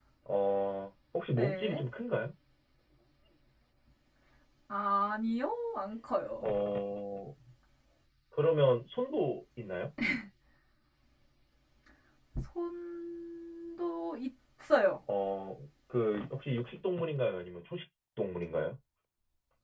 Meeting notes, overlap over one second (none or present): none